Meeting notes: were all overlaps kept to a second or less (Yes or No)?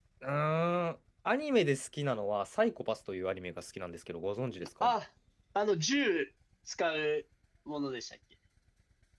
Yes